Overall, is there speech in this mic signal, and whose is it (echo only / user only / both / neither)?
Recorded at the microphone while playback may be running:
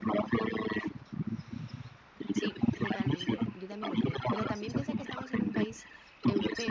both